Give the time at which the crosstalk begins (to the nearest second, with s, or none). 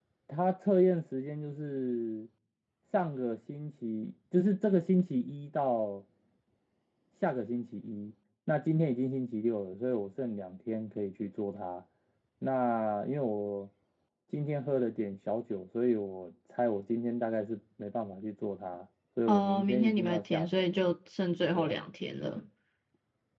19 s